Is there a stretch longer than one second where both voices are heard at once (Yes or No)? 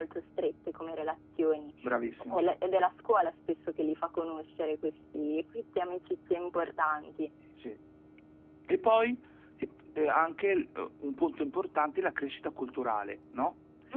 No